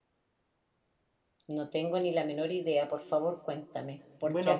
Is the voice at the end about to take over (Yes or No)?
Yes